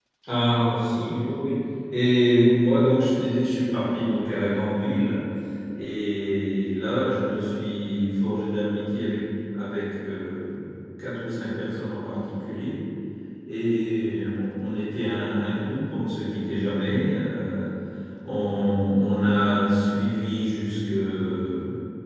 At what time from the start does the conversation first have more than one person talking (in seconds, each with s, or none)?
none